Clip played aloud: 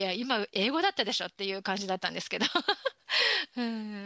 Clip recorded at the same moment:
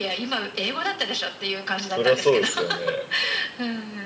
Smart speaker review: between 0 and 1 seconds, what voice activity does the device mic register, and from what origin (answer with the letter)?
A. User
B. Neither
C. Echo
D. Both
C